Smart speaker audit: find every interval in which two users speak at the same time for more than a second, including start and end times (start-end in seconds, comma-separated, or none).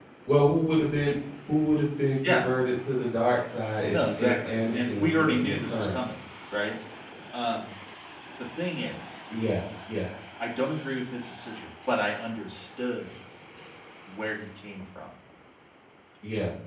3.9-6.0